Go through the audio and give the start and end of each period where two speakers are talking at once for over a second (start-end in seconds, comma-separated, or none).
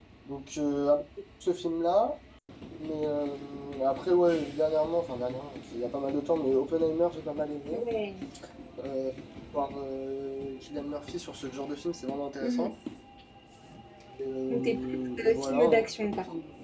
14.5-15.9